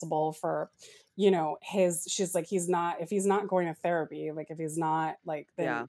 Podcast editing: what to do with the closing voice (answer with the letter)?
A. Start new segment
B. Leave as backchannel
B